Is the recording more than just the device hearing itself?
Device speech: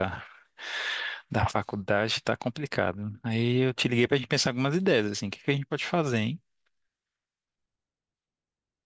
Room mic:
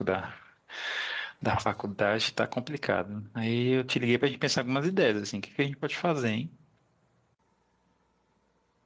No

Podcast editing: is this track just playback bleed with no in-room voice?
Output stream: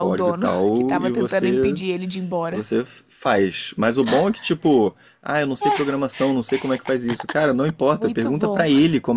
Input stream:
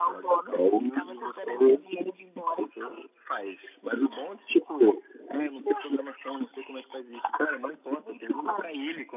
Yes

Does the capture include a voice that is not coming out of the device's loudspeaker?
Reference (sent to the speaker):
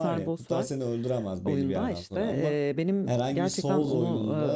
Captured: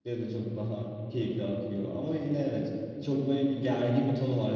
Yes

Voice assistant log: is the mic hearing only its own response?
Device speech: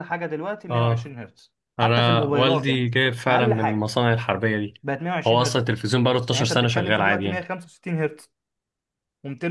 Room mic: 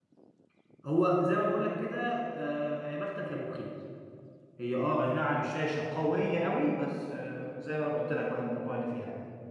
No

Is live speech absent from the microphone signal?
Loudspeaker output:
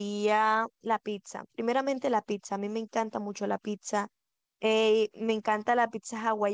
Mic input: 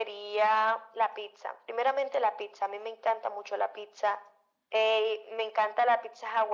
Yes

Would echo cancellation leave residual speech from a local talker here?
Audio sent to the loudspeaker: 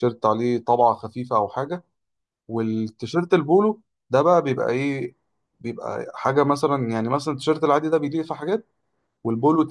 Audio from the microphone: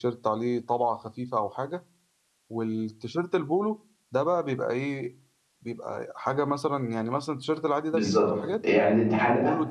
Yes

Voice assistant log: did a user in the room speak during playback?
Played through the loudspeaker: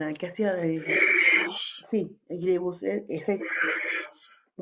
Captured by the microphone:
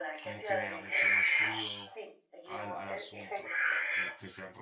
Yes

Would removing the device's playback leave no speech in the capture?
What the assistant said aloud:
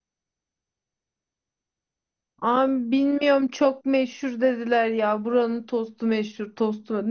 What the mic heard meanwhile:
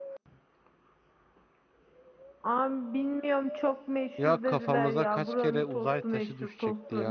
No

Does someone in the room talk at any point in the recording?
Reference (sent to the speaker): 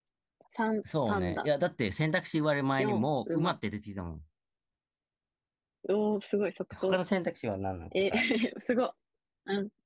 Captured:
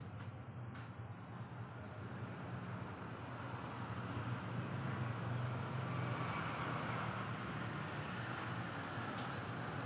No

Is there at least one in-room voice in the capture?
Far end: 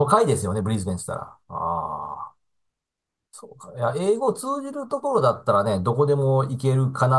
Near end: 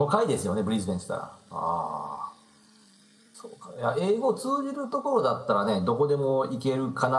No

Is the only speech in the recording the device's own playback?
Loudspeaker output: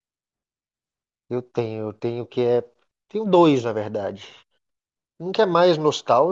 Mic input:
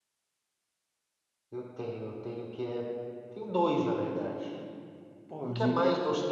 No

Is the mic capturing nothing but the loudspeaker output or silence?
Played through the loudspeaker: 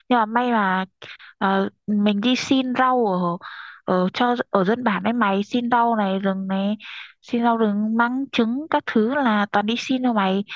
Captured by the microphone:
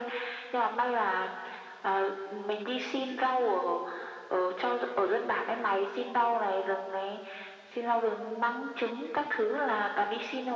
Yes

